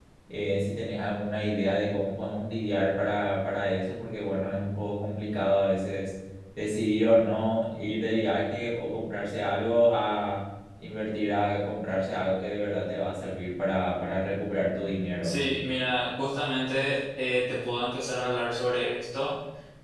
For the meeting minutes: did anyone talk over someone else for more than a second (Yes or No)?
No